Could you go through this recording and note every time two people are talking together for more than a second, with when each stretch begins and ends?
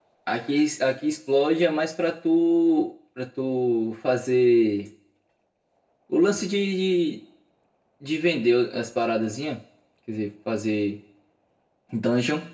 none

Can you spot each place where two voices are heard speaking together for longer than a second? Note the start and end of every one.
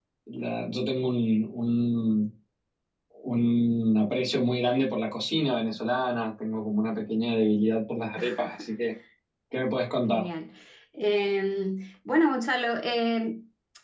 none

